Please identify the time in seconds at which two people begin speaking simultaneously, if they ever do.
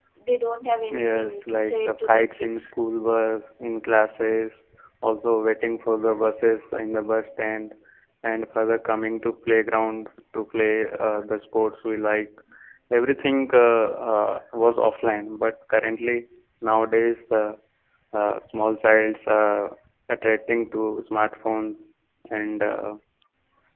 0.9 s

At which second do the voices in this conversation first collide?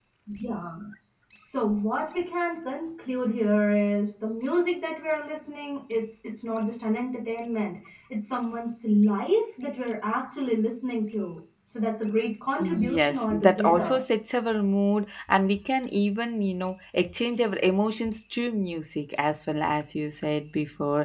12.6 s

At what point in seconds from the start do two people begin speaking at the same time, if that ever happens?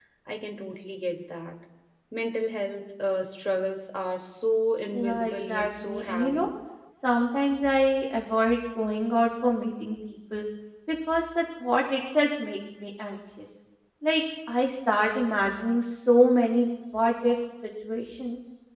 4.9 s

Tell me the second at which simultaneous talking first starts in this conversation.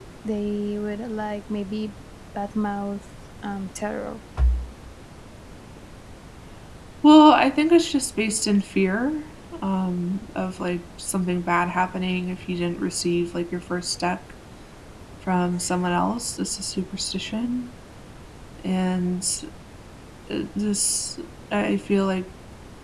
none

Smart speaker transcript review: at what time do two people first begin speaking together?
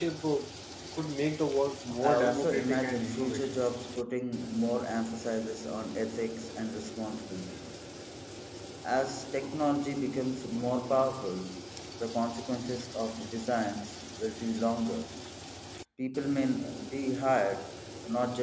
2.0 s

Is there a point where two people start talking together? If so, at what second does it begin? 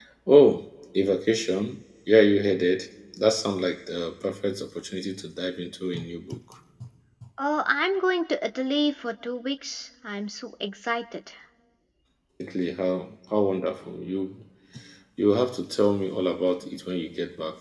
none

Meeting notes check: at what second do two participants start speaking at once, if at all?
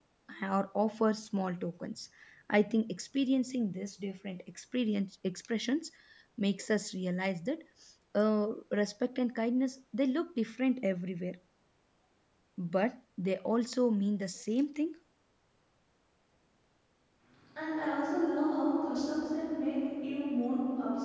none

